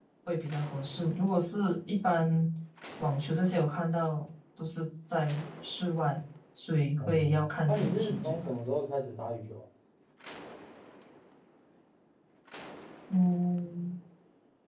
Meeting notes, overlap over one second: present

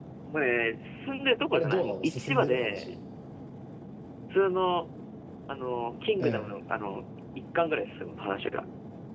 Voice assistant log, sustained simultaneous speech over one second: present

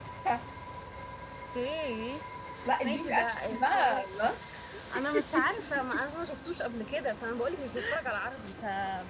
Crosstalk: present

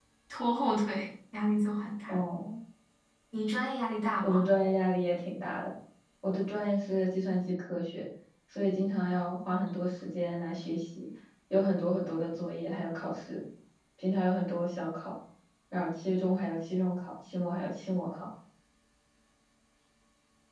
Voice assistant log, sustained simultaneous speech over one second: none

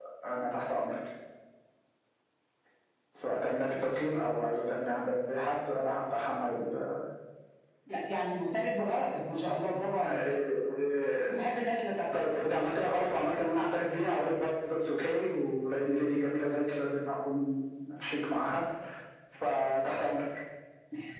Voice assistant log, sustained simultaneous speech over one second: none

